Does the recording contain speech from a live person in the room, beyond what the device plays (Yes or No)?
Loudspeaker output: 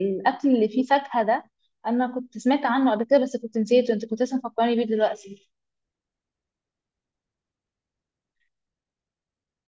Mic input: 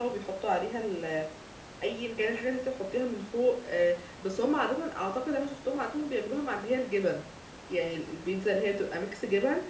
Yes